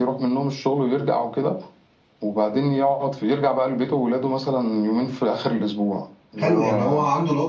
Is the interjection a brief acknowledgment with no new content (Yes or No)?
No